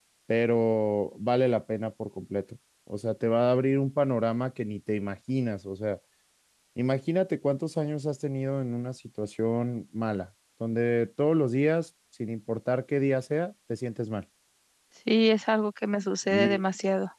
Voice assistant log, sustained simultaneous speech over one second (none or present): none